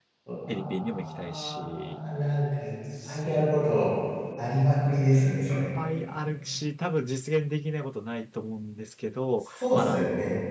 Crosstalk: present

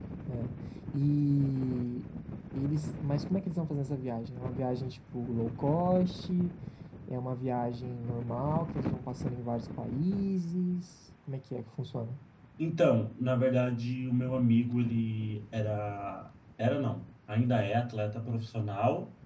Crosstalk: none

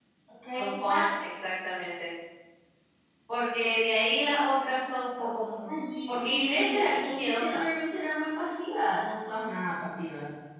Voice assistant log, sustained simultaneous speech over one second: present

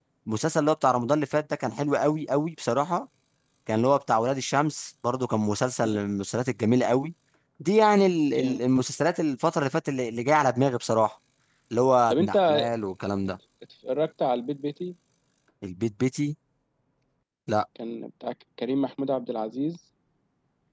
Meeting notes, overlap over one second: none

